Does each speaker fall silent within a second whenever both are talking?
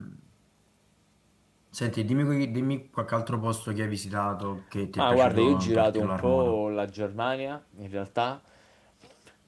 No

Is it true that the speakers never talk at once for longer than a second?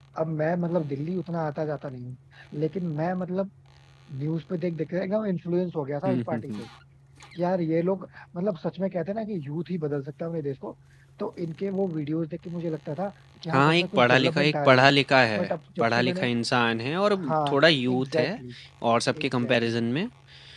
No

